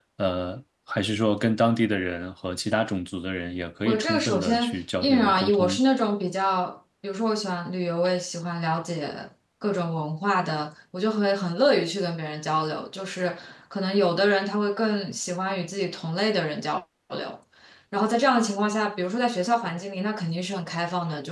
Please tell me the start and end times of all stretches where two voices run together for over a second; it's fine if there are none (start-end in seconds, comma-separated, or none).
3.8-5.8